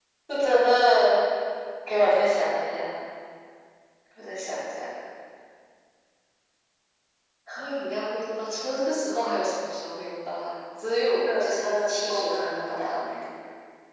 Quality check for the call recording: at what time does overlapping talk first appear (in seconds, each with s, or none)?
11.2 s